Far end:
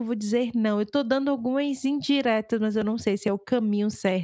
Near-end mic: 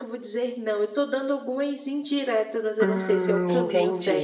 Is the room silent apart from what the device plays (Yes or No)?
No